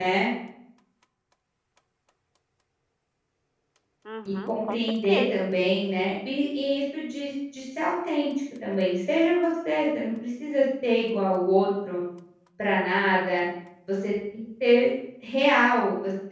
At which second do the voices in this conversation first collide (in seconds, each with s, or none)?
4.3 s